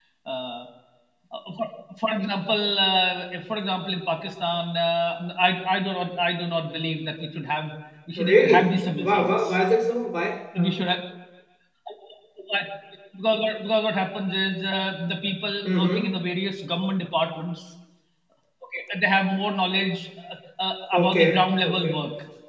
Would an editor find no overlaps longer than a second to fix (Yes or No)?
No